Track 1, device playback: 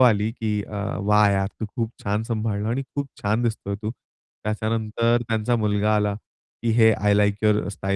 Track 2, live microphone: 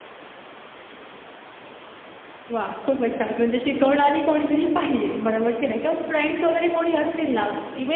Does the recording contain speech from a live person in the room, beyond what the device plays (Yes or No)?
Yes